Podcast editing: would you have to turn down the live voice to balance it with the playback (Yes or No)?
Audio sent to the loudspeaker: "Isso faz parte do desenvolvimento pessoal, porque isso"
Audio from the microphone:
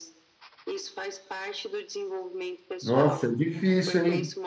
Yes